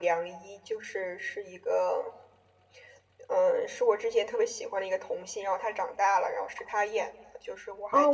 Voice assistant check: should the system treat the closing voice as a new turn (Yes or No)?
Yes